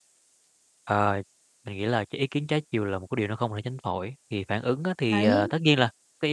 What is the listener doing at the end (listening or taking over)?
listening